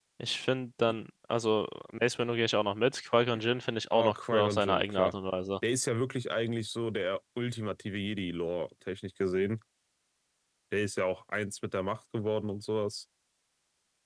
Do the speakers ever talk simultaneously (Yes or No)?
Yes